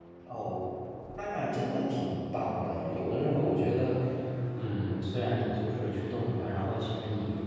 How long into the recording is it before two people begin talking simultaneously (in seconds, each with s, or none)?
none